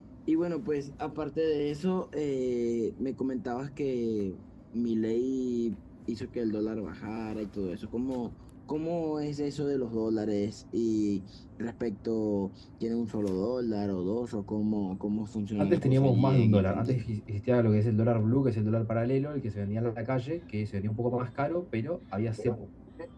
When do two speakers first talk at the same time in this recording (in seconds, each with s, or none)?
15.6 s